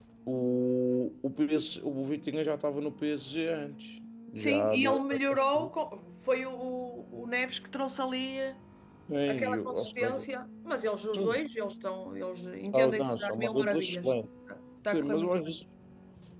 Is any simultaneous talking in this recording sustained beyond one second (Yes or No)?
Yes